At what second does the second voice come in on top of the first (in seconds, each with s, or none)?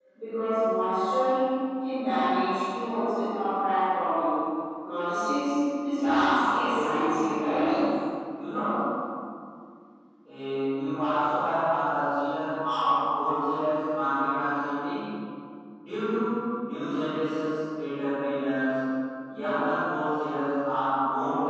5.9 s